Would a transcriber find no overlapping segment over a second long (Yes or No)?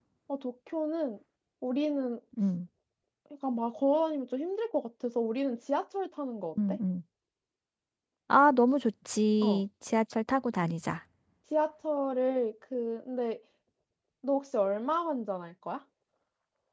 Yes